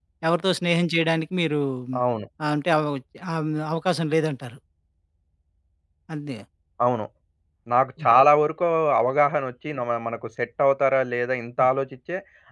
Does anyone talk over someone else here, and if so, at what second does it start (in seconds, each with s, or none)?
none